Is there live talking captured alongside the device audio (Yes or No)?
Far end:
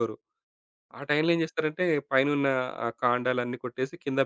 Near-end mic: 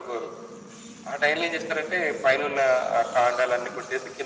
No